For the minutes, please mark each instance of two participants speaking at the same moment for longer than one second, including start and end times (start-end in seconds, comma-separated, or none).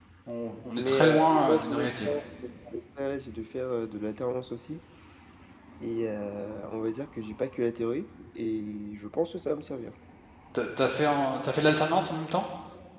0.8-2.2